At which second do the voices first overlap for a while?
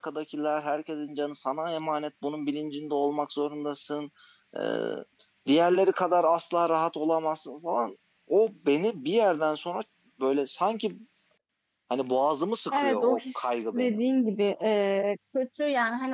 12.7 s

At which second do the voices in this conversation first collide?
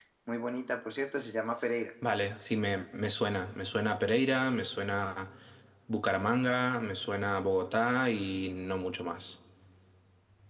none

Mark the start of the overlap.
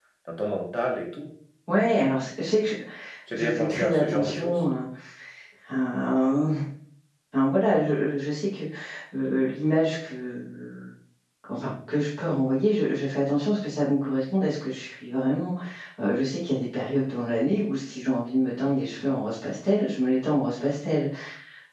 3.3 s

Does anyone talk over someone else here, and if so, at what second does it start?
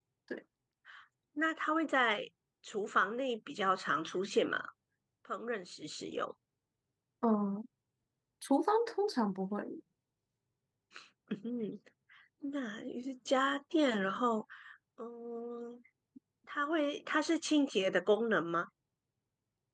none

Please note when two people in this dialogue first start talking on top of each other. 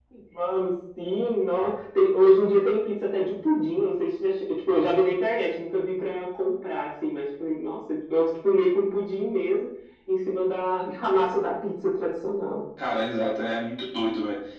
none

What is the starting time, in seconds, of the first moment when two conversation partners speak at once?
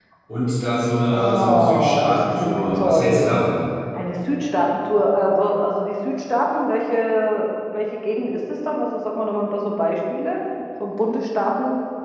1.1 s

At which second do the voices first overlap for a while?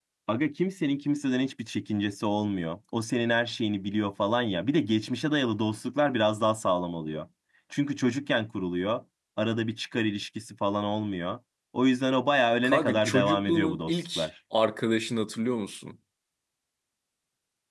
12.6 s

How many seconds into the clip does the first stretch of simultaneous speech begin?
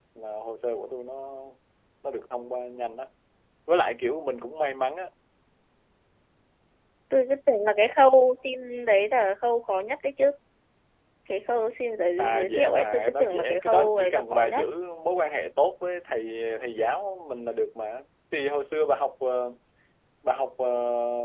12.2 s

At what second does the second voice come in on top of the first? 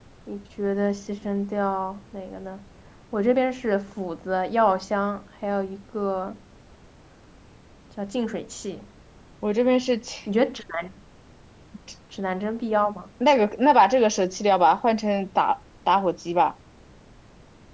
none

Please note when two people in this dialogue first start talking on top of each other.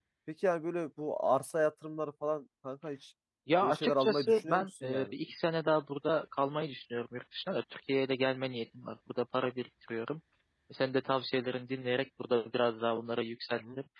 3.6 s

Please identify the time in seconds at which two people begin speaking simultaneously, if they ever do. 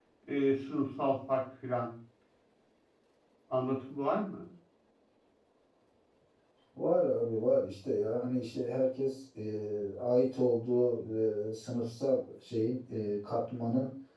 none

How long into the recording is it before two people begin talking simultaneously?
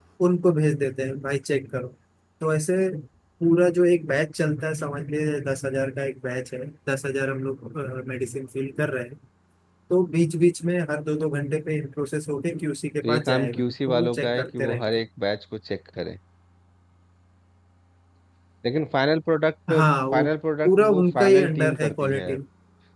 13.0 s

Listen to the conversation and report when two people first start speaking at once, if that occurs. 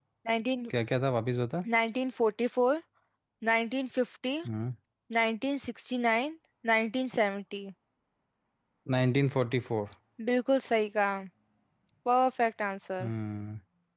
none

